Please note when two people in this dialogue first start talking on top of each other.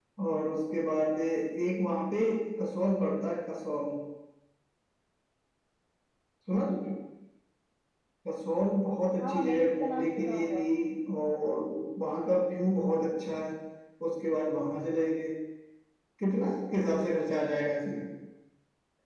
9.2 s

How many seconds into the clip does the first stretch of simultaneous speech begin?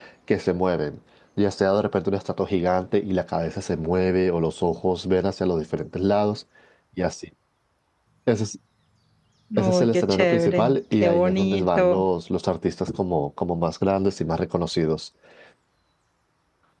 9.6 s

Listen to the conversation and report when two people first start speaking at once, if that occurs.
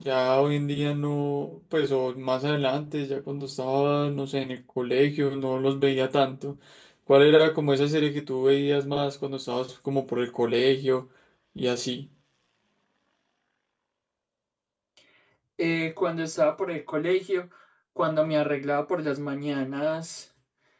none

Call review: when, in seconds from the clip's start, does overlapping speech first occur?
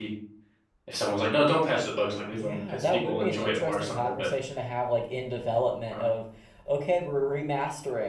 2.3 s

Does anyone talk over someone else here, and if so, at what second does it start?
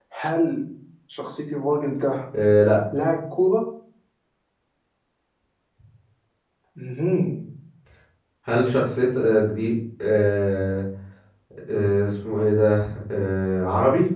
none

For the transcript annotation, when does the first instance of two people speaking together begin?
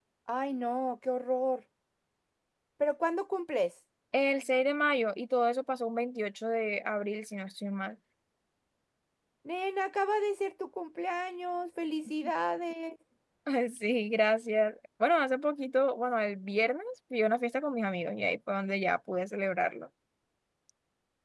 none

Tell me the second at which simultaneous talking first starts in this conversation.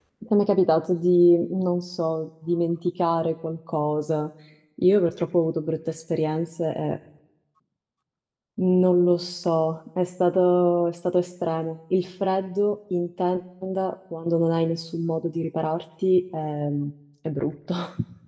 none

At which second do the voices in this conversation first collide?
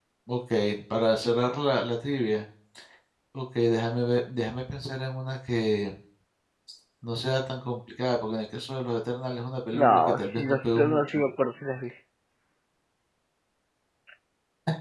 9.7 s

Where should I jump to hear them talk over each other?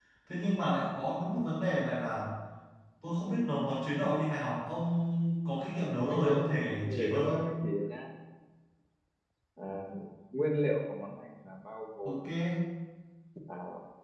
5.9 s

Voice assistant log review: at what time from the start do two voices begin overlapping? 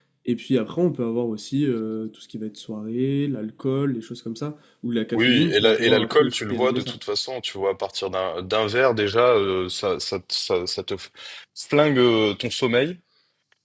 5.1 s

